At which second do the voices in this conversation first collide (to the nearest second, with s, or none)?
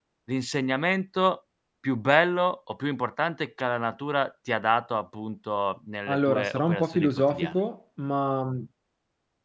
6 s